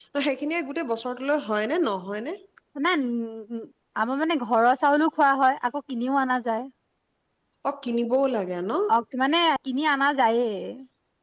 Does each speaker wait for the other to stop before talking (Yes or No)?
Yes